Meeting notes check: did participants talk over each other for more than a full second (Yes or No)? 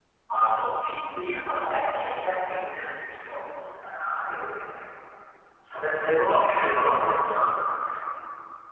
No